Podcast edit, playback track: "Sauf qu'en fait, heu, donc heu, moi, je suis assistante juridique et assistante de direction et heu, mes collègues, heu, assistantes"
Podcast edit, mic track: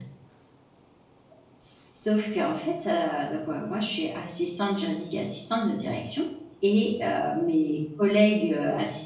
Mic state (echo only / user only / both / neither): echo only